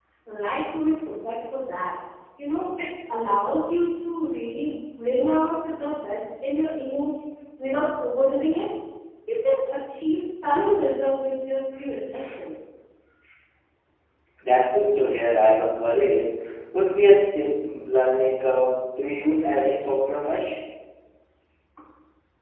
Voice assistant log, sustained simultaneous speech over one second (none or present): none